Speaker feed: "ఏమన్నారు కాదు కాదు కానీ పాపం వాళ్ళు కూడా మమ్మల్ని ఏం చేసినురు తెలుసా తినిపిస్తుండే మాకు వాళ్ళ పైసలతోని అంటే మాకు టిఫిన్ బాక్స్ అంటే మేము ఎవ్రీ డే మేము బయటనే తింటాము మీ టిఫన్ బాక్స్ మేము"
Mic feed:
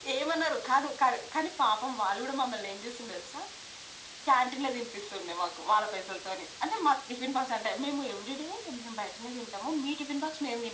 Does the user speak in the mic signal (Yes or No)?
No